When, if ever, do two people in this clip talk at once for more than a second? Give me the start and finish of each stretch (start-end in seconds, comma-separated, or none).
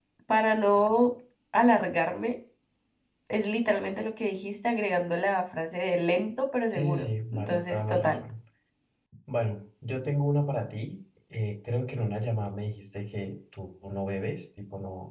6.7-8.2